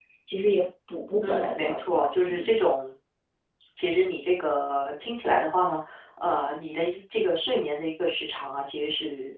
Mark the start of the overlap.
1 s

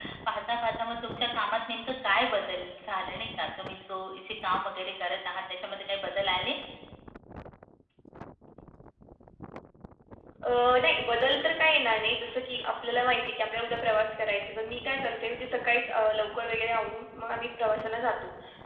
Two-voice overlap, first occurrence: none

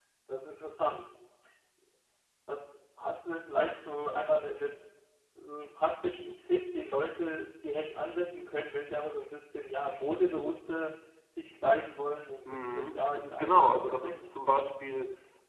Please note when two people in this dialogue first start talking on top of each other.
12 s

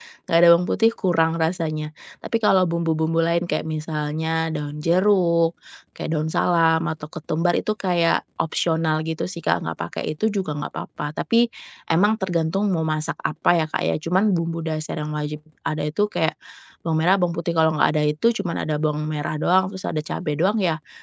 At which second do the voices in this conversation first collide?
none

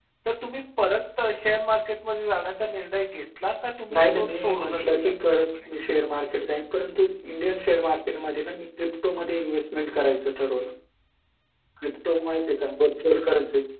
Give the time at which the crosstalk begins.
4 s

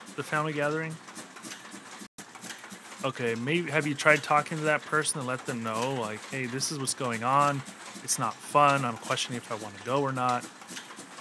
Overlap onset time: none

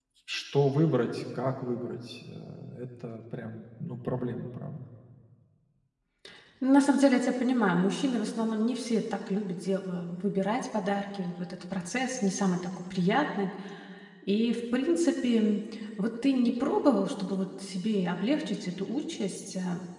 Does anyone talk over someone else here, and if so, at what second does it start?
none

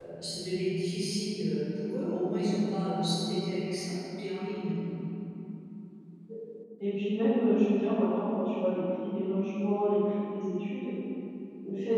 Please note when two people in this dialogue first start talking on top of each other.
none

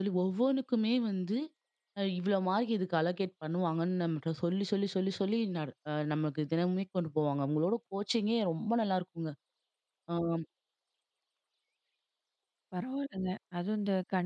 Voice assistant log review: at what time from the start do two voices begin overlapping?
none

